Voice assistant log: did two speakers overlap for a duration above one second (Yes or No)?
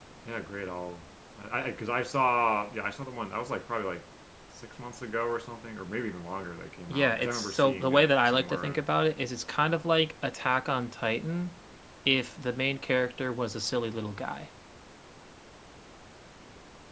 Yes